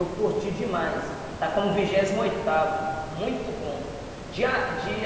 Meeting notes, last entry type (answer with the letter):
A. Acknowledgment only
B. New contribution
A